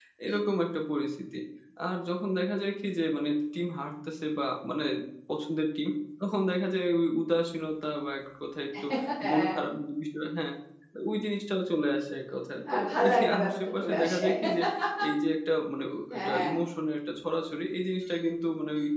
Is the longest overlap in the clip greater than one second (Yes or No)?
Yes